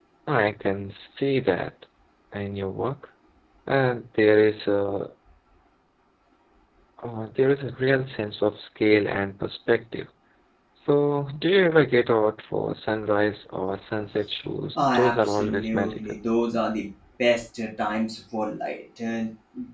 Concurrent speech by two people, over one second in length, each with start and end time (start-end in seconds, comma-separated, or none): 14.8-16.0